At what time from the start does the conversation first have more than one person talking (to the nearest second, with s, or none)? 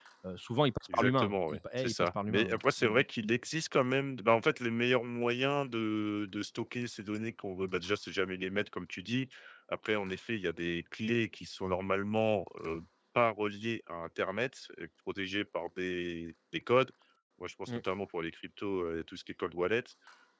1 s